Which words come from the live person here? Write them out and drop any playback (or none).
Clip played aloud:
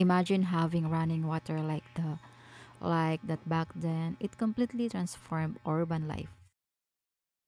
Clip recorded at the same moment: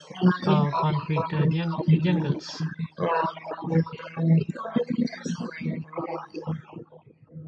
uh, concrete uh, jung- jungles.